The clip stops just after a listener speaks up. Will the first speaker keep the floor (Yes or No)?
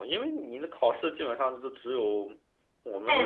No